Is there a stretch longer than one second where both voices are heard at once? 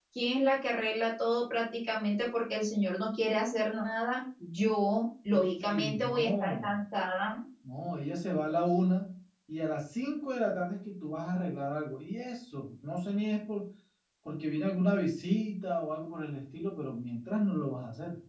Yes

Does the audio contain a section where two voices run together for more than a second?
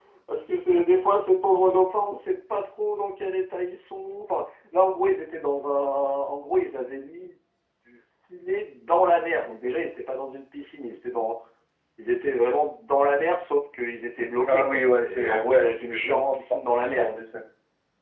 Yes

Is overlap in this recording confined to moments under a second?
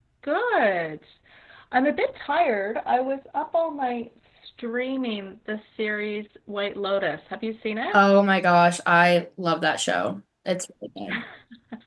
Yes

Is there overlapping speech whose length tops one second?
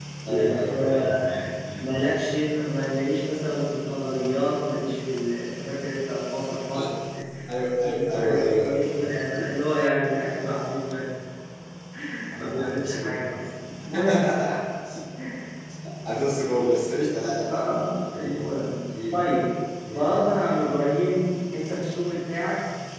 Yes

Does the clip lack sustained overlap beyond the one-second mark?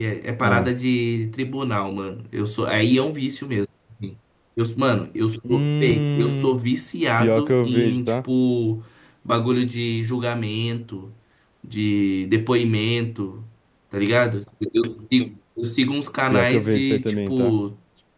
No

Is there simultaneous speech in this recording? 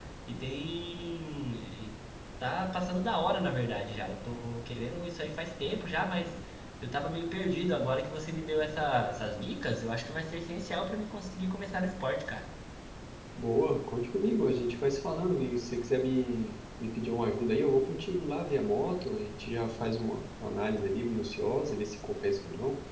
No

